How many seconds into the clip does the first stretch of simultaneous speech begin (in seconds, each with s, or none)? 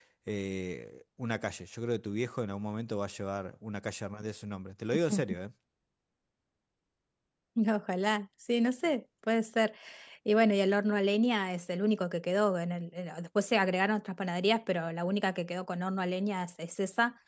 none